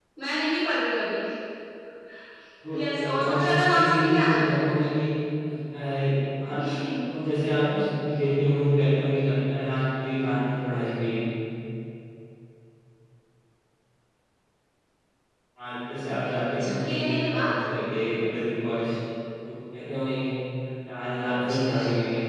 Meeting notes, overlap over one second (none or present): present